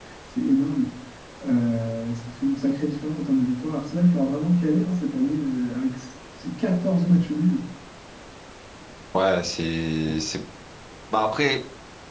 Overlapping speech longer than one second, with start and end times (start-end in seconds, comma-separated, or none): none